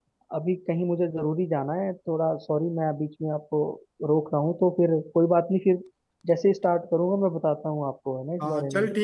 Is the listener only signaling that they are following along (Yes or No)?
No